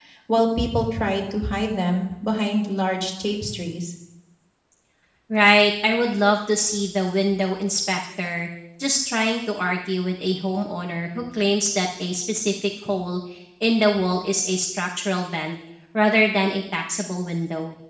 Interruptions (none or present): none